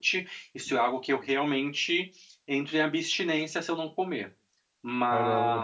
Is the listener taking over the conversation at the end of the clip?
No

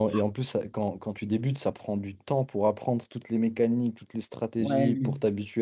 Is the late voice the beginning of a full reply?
Yes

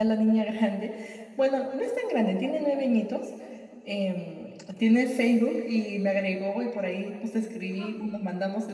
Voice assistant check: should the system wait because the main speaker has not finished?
Yes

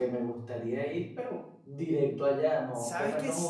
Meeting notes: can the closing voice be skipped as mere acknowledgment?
No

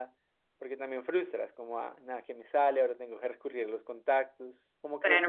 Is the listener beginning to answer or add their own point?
Yes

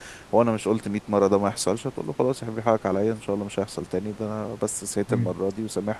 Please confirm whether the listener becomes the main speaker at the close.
No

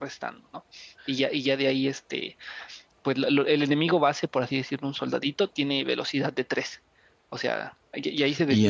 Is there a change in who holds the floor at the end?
Yes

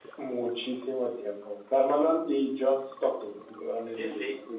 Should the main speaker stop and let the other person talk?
Yes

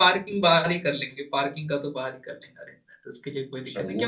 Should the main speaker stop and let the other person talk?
No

